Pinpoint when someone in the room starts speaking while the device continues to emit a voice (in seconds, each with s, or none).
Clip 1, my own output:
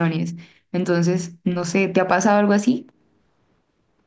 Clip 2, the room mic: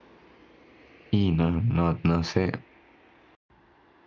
1.1 s